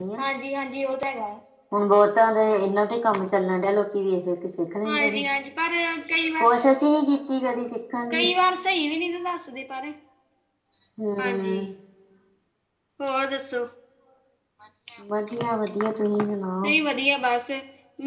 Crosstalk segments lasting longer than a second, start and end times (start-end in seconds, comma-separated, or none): none